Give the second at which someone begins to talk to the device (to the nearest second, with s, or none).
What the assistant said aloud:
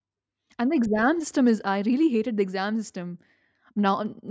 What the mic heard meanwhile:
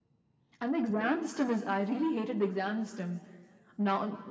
none